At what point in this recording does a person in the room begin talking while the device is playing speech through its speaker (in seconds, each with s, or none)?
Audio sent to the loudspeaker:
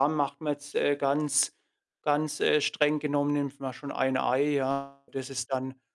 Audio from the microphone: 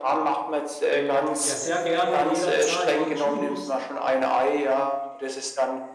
0.9 s